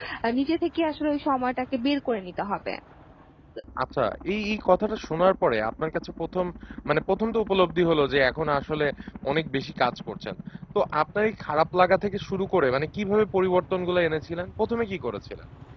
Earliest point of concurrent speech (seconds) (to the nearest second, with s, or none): none